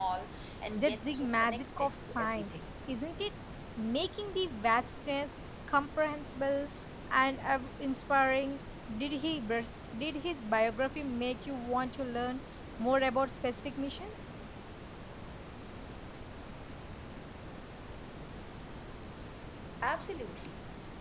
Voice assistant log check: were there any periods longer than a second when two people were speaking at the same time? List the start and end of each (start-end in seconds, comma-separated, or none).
0.8-2.5